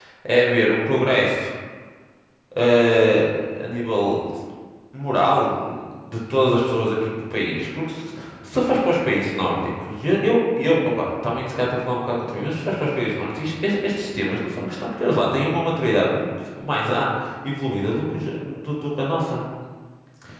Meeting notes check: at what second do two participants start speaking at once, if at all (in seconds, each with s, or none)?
none